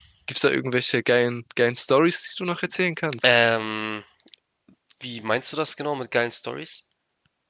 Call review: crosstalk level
none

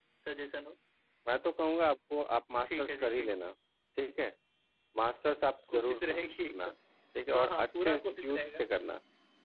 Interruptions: present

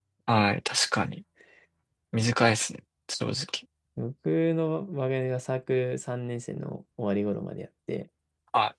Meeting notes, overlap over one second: none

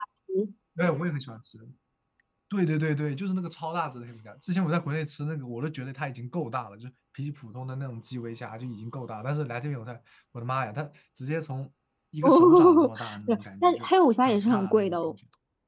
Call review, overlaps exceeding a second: present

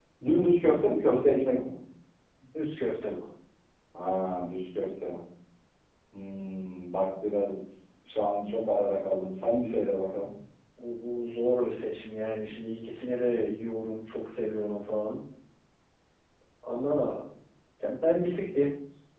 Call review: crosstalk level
none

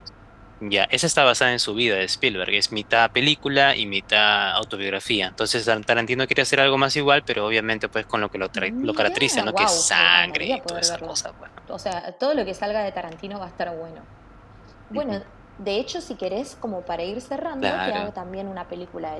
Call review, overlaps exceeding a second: present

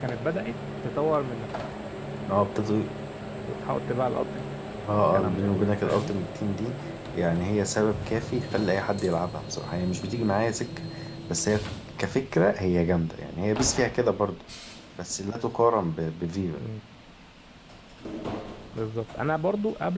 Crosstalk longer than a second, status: present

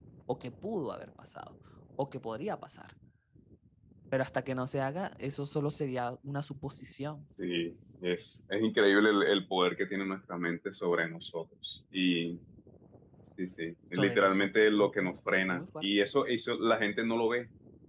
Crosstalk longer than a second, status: present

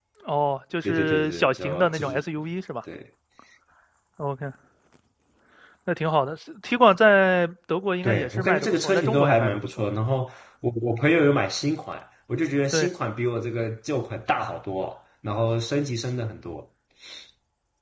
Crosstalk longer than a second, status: present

